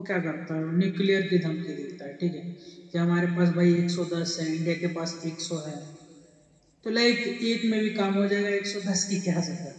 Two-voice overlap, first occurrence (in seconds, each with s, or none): none